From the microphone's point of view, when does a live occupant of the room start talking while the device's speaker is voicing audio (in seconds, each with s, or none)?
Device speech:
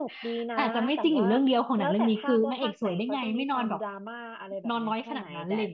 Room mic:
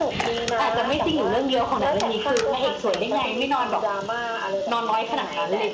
none